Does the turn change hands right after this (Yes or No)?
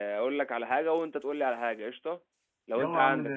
Yes